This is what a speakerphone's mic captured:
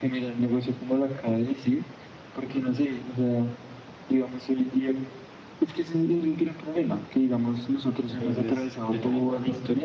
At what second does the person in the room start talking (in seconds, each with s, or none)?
8.1 s